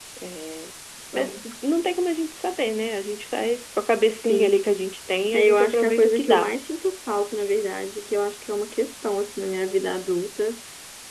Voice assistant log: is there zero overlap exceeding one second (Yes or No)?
No